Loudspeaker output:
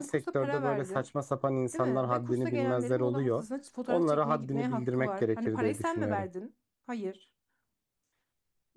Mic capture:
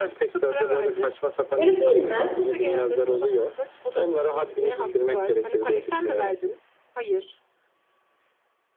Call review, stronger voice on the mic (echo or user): user